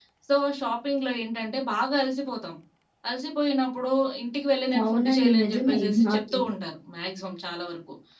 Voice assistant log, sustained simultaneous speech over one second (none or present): present